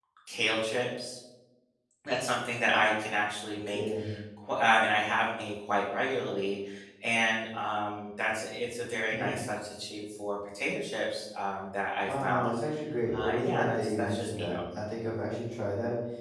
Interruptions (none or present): present